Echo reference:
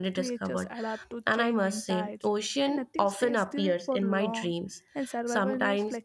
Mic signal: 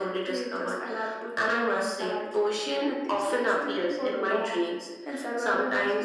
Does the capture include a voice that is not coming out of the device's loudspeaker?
No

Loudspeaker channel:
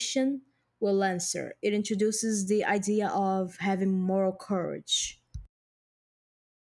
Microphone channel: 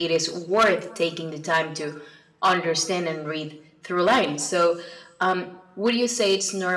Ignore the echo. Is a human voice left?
Yes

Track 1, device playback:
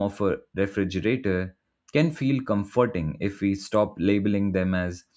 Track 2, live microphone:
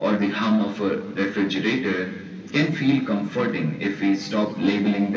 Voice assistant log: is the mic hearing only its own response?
Yes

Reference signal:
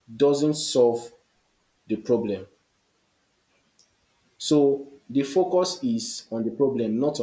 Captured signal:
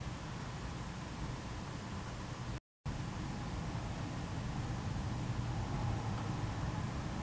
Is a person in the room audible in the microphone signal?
No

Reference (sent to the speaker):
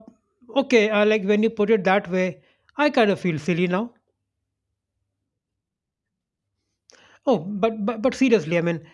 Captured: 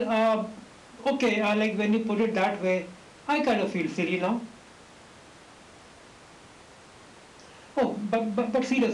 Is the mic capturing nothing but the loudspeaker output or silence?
Yes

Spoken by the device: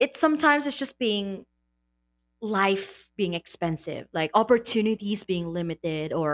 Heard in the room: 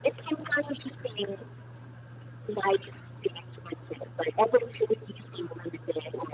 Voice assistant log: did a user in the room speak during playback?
No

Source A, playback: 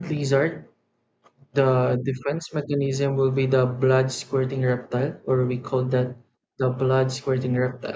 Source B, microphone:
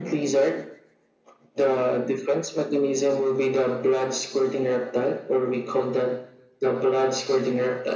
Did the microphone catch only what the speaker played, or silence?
Yes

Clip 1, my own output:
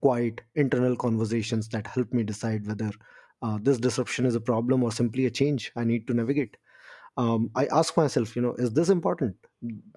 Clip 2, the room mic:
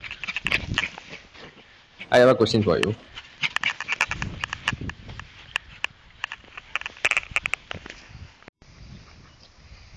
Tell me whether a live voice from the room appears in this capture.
Yes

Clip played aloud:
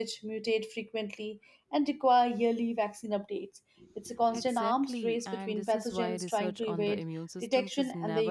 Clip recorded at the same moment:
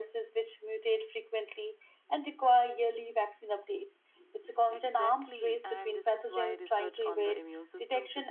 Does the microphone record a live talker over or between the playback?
No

